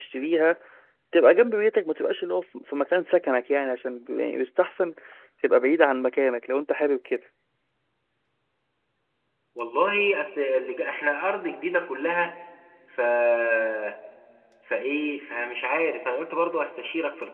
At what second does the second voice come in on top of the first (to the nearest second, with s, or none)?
none